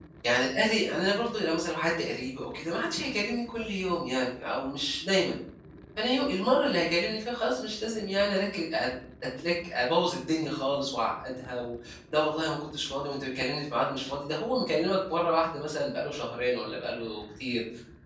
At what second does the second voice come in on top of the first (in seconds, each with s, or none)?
none